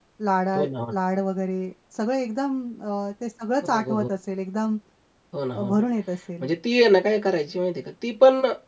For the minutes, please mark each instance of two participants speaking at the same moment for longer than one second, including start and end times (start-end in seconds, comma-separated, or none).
none